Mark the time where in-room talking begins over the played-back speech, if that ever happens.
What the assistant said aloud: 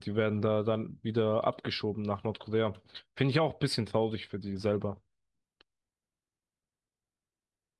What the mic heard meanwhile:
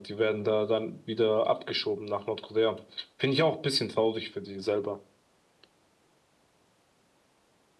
none

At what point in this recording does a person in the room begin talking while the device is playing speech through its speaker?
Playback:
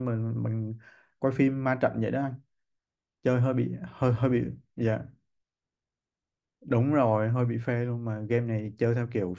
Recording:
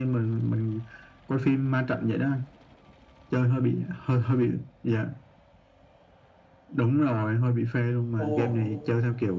8.2 s

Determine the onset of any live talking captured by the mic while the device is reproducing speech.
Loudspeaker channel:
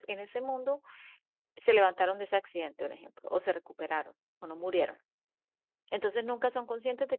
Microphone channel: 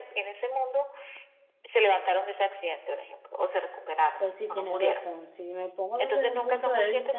4.2 s

